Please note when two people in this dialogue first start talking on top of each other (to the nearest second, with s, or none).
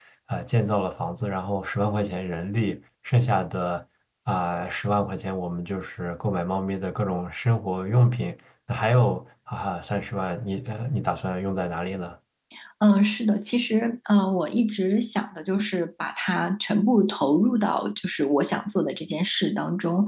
none